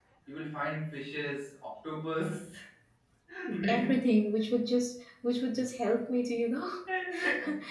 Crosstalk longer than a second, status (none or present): none